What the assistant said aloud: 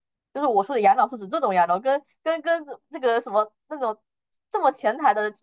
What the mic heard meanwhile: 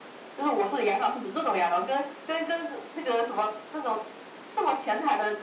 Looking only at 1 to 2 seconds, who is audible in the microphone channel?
echo only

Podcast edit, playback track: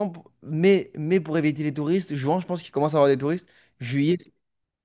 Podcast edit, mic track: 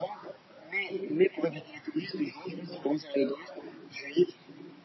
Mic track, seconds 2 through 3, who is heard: echo only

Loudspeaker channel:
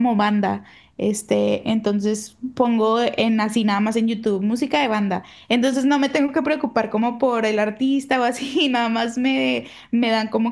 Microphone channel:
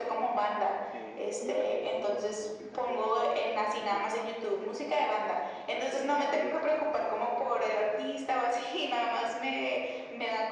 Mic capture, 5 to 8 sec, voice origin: both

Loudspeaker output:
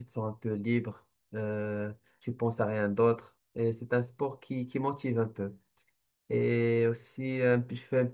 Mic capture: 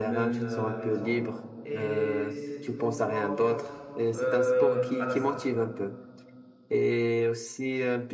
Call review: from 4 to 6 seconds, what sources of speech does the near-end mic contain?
both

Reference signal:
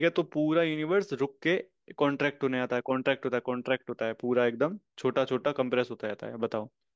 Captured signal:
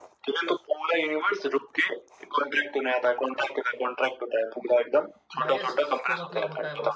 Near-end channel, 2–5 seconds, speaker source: echo only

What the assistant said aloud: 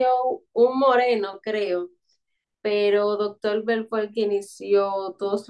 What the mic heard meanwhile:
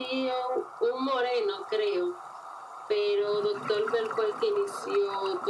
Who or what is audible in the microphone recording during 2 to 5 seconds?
echo only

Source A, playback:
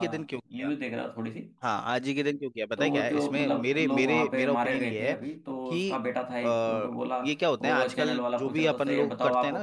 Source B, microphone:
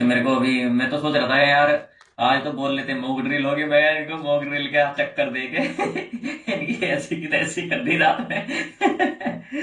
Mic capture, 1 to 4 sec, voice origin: user only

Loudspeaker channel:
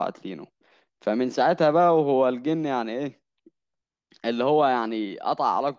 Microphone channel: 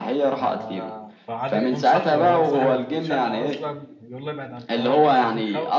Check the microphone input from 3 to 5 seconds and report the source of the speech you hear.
both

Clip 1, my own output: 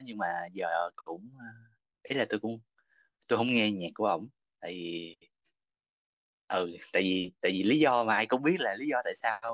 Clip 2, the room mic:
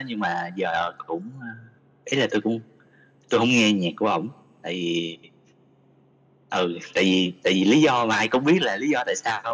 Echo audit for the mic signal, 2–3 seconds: echo only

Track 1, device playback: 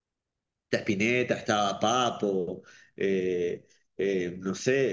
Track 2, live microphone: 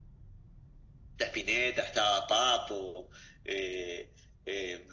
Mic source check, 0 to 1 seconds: neither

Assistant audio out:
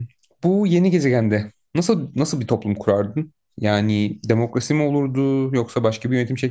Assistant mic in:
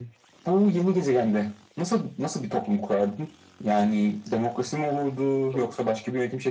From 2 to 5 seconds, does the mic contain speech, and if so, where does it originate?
echo only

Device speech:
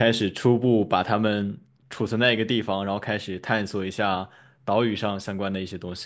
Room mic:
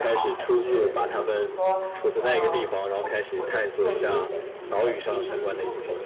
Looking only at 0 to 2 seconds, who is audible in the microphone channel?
both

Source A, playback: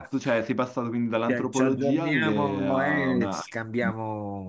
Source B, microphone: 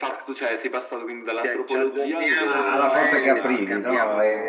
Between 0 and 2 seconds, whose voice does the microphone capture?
echo only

